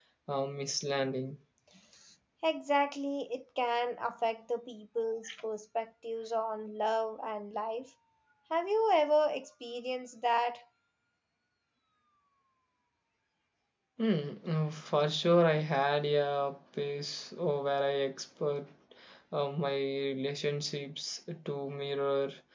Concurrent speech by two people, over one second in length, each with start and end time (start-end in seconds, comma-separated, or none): none